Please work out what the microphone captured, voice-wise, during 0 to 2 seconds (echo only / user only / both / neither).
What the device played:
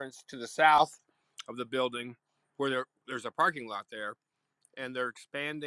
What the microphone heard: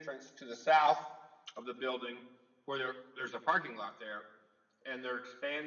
echo only